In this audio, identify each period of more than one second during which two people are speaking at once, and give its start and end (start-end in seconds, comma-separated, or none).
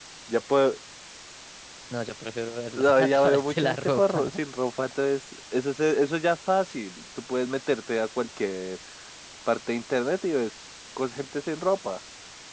2.8-4.4